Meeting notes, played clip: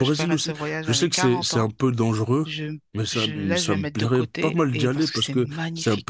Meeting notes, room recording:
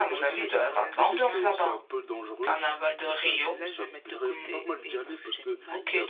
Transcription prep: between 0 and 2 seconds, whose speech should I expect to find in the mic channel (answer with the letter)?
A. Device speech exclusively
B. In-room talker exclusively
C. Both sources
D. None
C